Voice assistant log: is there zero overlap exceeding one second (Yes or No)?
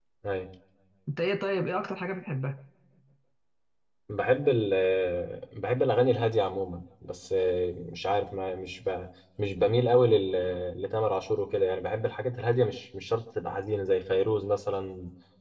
Yes